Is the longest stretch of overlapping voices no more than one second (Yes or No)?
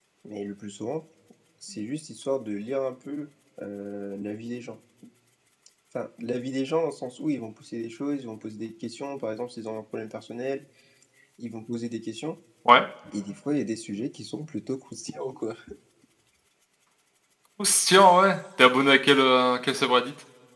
Yes